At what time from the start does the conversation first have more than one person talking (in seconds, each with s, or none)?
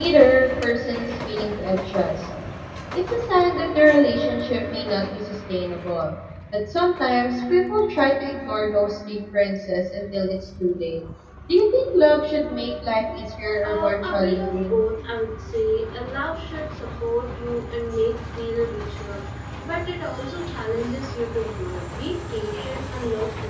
13.6 s